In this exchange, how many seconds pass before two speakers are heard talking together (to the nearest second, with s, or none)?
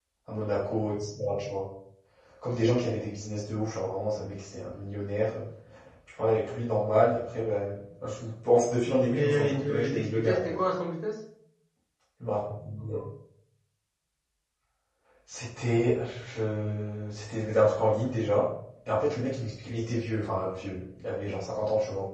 9 s